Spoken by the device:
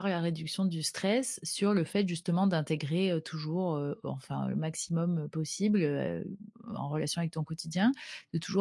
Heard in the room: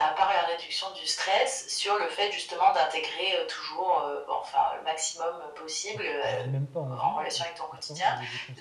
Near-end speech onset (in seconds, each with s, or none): 5.9 s